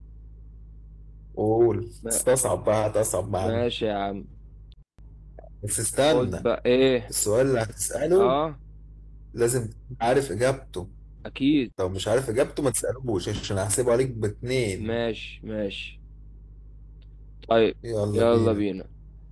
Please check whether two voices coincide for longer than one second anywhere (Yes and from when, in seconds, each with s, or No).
No